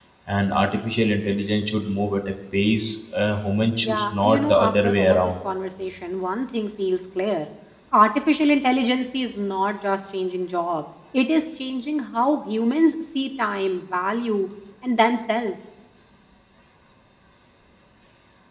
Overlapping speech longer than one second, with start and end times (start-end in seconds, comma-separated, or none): 3.8-5.3